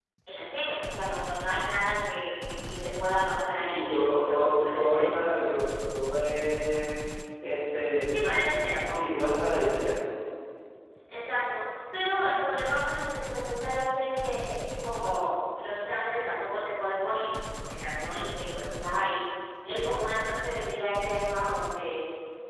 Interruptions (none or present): present